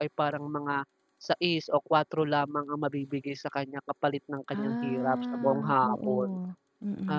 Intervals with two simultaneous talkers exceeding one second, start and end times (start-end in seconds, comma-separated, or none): 4.5-6.3